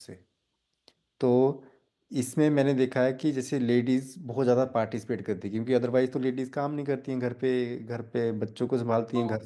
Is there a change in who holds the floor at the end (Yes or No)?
No